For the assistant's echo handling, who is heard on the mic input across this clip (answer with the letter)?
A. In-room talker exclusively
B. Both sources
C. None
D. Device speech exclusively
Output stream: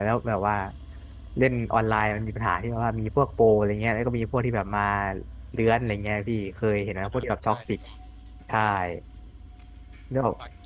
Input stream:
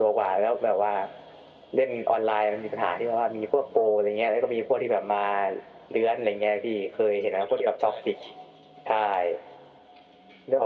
D